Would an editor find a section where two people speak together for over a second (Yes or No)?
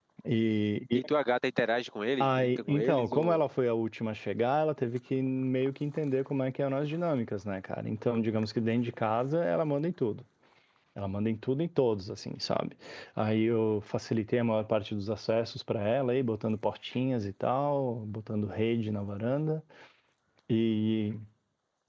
Yes